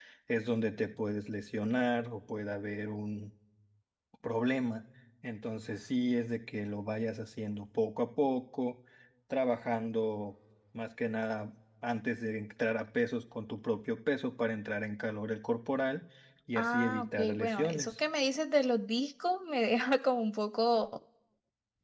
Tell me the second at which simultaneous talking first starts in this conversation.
16.6 s

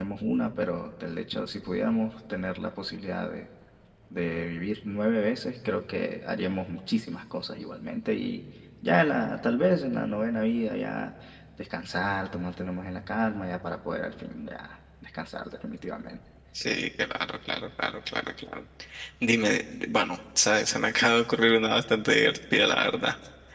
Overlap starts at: none

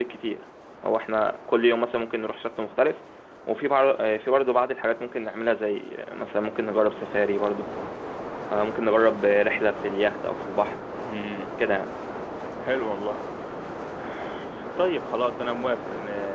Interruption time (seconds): none

